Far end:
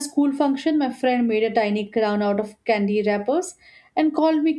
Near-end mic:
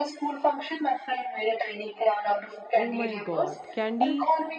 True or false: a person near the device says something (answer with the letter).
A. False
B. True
B